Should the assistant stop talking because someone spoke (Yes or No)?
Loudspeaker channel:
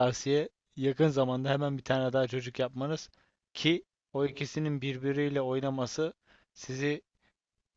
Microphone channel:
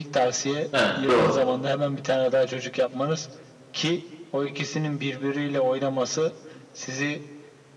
Yes